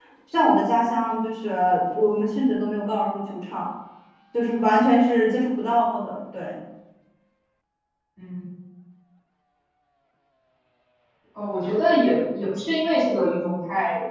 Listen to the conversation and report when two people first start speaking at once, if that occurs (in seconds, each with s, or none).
none